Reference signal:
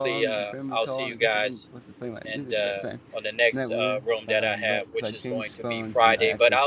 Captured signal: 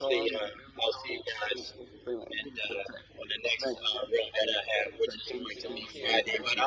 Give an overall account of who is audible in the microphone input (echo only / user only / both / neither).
both